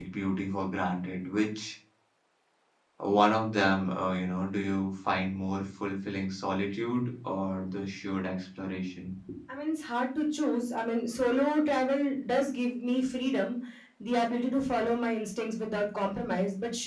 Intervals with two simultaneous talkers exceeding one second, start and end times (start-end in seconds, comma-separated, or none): none